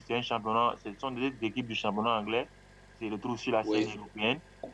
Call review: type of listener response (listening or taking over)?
listening